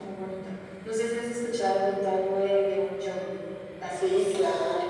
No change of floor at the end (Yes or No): No